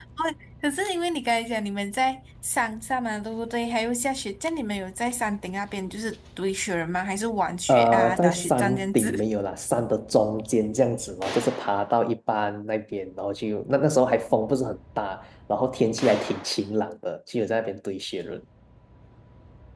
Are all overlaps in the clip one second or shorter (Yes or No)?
No